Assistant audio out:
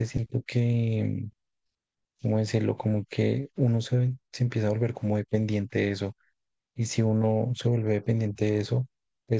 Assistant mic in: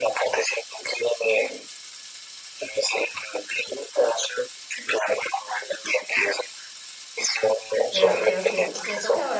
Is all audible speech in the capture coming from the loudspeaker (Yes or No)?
No